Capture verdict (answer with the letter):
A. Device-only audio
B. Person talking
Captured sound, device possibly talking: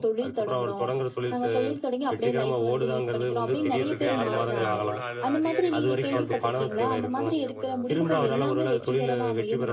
B